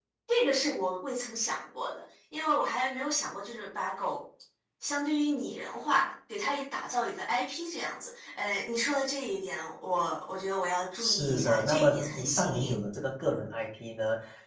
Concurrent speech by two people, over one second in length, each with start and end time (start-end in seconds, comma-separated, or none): 11.0-12.8